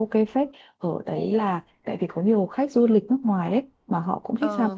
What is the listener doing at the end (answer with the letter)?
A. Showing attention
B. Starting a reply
A